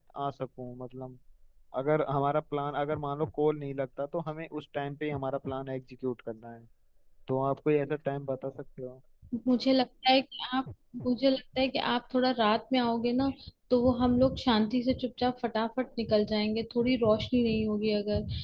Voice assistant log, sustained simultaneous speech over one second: none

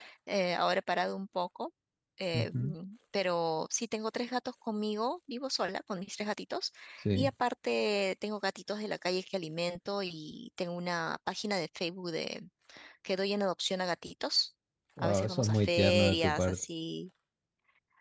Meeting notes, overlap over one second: present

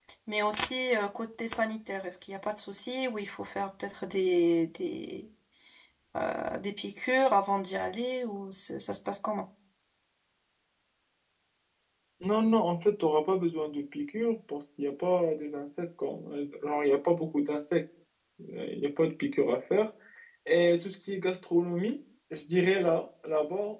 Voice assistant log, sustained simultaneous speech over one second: none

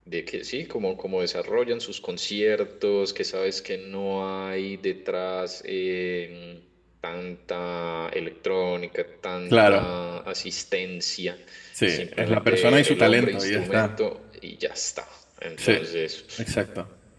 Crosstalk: present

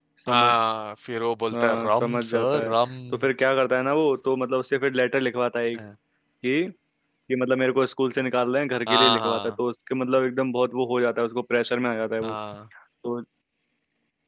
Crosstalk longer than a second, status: present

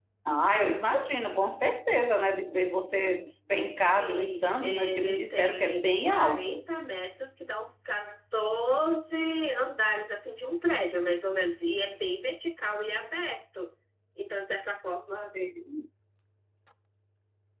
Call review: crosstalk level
present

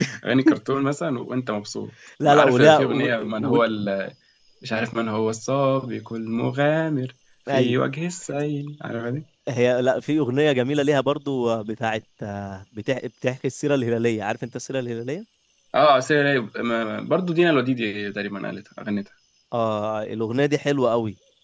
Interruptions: present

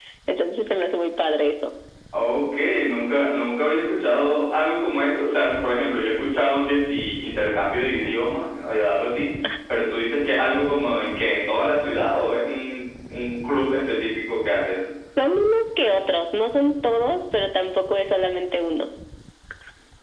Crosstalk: none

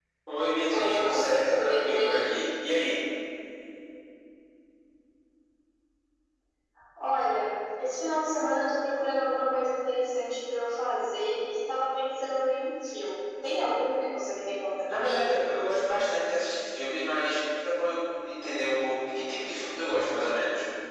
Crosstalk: present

